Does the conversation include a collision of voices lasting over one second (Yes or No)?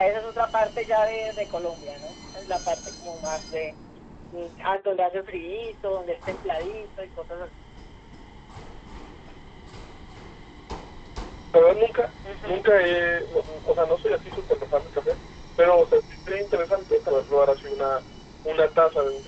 No